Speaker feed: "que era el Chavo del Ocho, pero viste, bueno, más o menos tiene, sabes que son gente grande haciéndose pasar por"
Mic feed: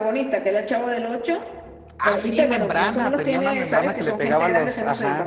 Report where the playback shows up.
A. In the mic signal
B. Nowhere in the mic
A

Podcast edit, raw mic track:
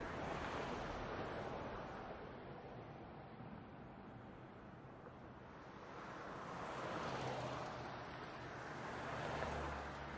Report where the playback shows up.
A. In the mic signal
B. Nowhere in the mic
B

